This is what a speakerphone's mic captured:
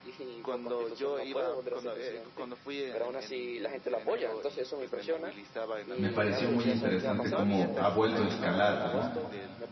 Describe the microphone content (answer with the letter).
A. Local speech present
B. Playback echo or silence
A